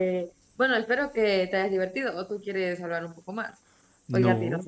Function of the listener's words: taking over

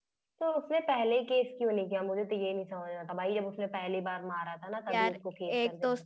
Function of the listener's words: taking over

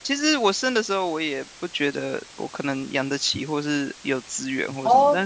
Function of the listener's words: listening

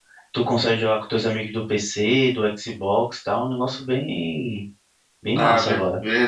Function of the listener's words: taking over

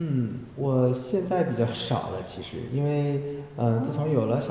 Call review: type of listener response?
listening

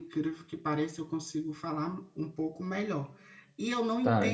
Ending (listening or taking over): listening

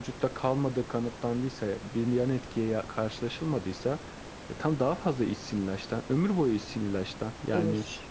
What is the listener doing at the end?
taking over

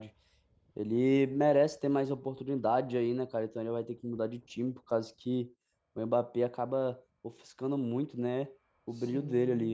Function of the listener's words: taking over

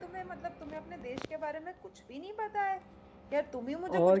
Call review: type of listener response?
listening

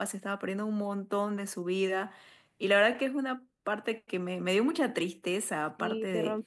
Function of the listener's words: taking over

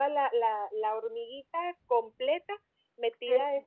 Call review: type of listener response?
listening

